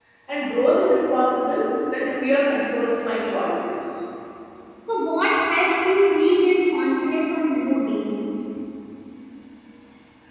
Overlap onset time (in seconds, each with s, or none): none